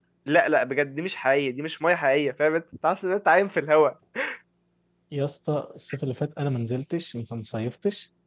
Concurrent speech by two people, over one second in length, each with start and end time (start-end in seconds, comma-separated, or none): none